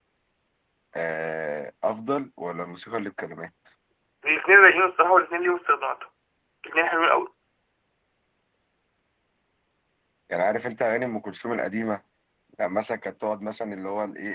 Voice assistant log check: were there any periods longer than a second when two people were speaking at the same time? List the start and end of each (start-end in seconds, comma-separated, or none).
none